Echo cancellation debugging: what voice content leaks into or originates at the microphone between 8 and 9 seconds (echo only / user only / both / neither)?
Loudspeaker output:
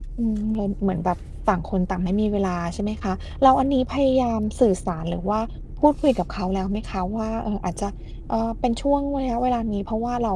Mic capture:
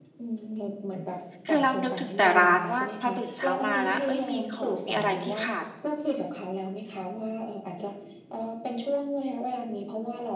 echo only